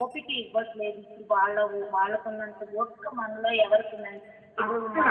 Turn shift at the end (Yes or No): No